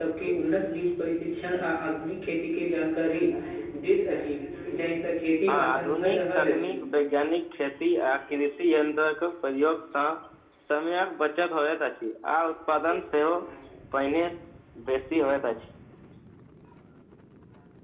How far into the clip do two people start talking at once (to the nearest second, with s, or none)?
5 s